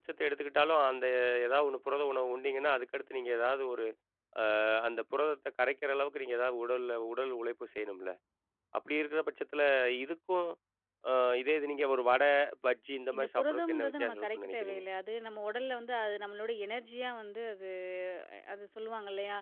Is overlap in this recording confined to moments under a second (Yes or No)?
No